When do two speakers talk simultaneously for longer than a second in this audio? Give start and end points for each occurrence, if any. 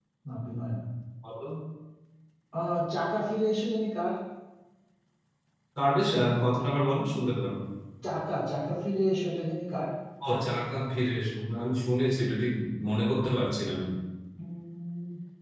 none

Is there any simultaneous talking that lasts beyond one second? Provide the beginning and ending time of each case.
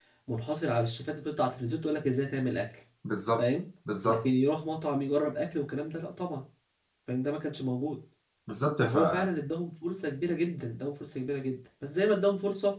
none

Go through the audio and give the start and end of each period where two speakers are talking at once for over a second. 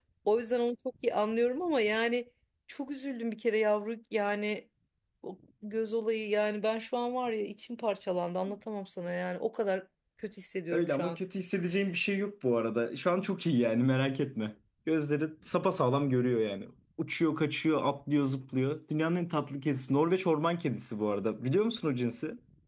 none

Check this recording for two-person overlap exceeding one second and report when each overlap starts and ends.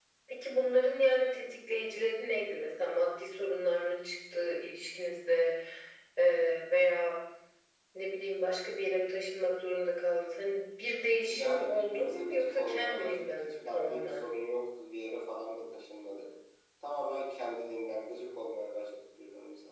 11.3-14.2

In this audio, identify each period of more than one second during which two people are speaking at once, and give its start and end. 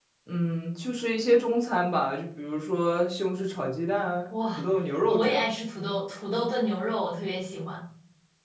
none

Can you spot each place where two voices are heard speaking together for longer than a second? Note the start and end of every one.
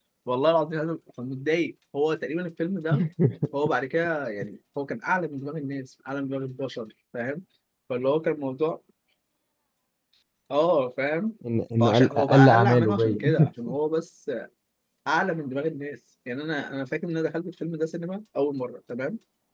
11.8-13.5

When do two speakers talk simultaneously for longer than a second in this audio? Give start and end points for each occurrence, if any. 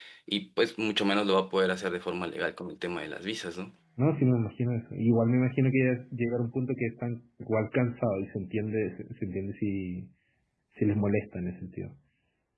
none

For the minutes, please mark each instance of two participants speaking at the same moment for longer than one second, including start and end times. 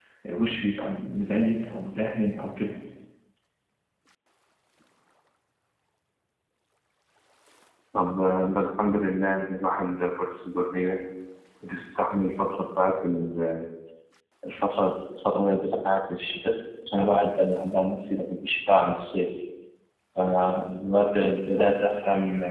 none

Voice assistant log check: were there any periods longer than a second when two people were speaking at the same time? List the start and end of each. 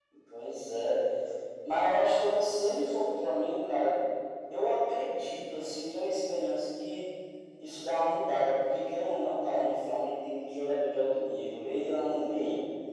none

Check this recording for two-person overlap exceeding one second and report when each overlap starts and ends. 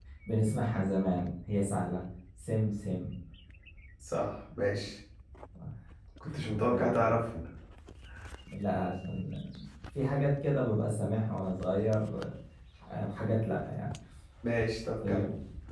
none

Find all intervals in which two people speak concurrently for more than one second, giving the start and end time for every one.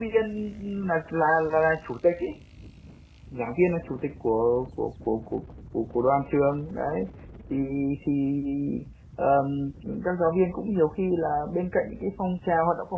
none

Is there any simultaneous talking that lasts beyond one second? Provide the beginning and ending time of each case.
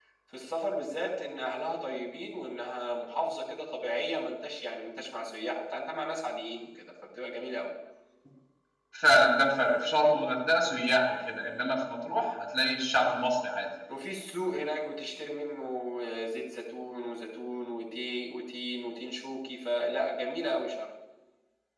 none

